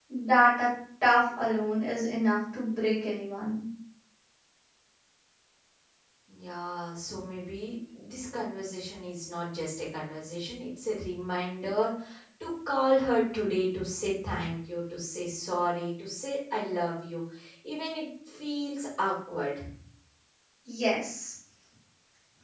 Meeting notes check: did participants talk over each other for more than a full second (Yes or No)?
No